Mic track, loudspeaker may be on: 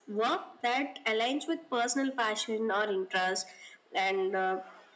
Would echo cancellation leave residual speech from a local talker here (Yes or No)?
No